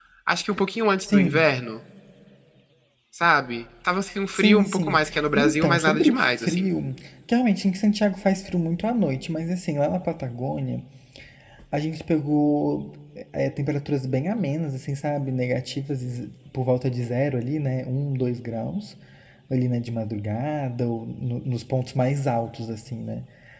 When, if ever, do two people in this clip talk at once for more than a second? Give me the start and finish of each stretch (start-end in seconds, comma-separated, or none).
4.3-6.7